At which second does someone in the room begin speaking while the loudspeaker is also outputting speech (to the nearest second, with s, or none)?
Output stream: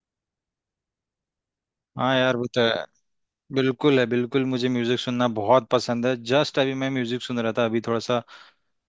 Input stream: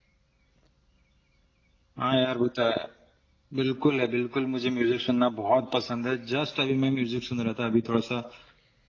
none